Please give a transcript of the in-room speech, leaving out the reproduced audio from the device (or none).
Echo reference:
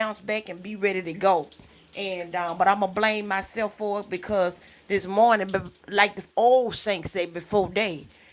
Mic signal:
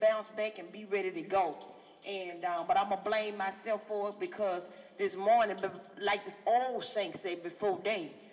none